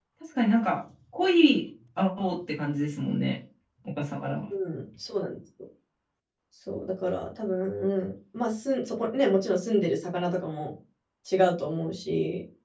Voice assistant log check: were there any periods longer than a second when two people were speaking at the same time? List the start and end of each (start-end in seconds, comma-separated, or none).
none